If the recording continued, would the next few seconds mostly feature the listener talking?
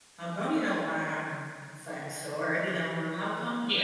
No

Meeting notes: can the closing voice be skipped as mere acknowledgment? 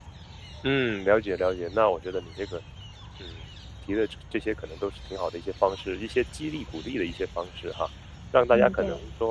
Yes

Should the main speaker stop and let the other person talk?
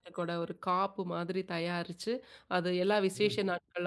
No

